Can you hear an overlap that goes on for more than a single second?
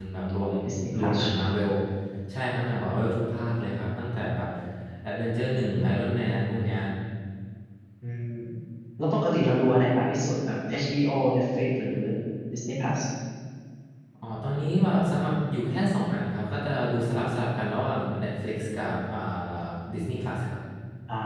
No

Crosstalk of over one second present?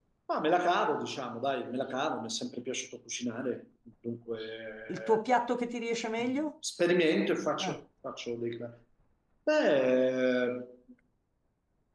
No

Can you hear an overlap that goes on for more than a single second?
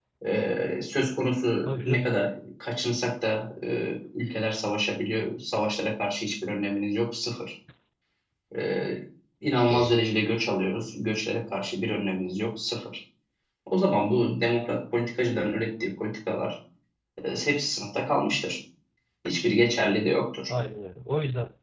No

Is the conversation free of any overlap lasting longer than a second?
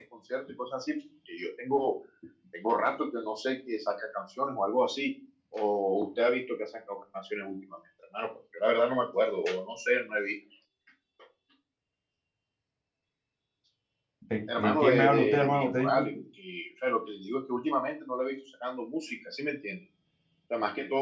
No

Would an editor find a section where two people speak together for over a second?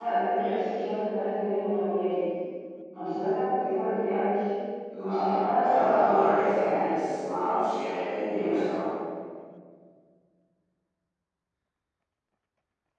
Yes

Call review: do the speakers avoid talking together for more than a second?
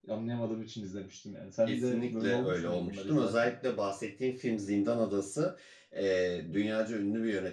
No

